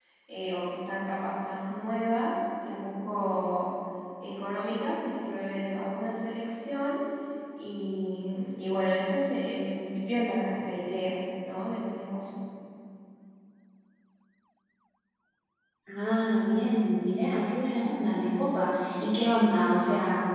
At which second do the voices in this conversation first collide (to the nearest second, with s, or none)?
none